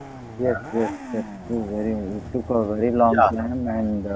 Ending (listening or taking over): listening